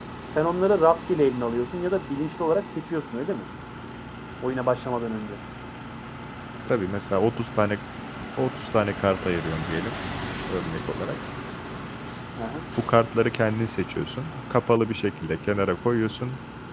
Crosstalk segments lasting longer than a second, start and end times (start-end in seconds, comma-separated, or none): none